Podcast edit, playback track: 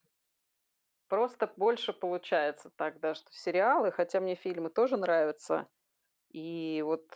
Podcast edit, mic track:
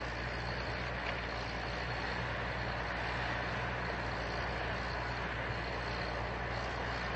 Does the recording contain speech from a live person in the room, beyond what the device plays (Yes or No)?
No